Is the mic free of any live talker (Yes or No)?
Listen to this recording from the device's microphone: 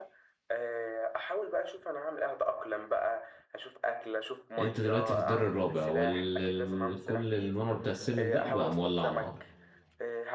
No